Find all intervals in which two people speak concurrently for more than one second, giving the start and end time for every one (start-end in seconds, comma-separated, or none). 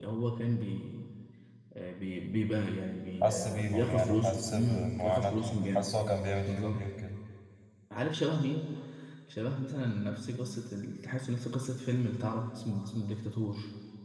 3.2-5.9